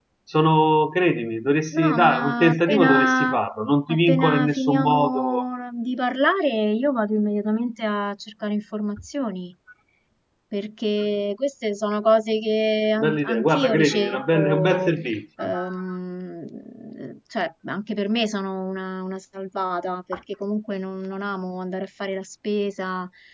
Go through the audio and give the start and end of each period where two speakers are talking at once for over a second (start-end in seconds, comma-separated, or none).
1.7-3.4, 3.9-5.4, 13.0-14.9